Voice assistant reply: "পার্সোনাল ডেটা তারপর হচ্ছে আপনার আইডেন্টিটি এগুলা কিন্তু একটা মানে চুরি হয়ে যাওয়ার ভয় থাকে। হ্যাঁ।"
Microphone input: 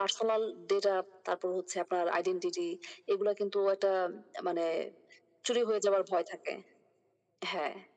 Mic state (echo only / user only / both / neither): echo only